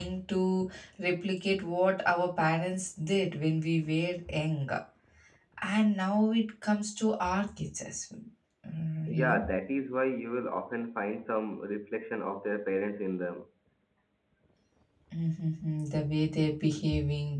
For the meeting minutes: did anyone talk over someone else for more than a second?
No

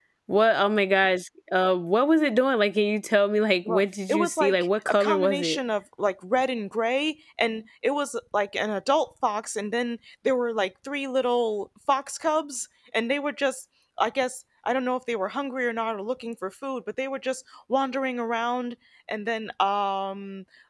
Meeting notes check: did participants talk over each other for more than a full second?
Yes, from 3.6 s

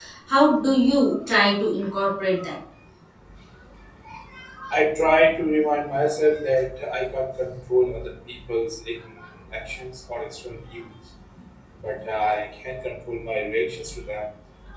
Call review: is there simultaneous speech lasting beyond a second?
No

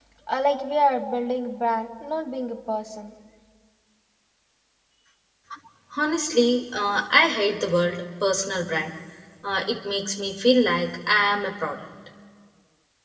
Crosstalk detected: No

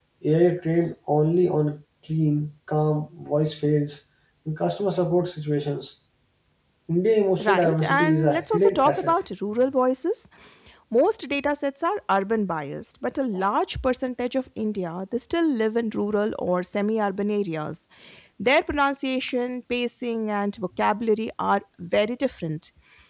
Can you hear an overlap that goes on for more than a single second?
Yes, from 7.4 s

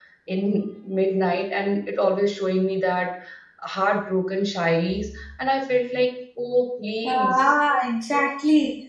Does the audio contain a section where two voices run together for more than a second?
No

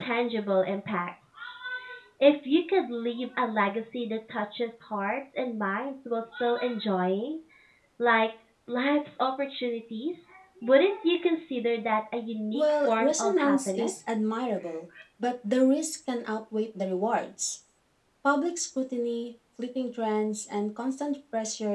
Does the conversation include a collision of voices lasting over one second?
Yes, from 12.5 s

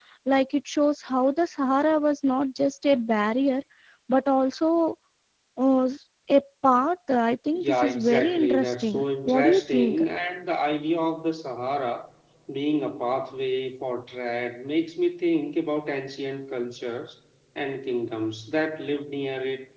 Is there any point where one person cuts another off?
Yes, from 7.5 s

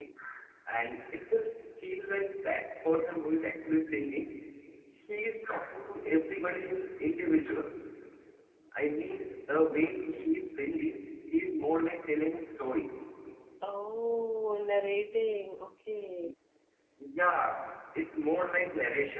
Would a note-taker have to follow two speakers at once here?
No

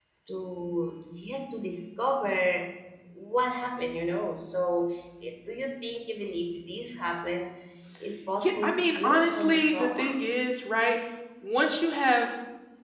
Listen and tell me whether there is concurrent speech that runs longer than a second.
Yes, from 8.4 s

